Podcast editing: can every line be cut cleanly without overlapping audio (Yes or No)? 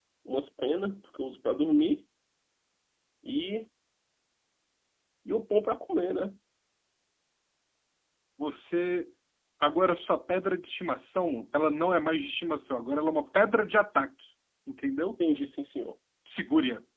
Yes